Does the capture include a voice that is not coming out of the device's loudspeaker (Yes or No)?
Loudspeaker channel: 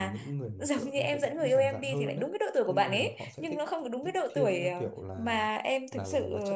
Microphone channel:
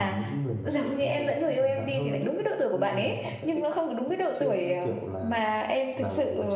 No